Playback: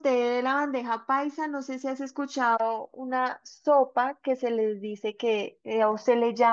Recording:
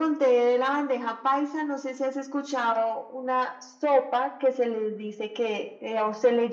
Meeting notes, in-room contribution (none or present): none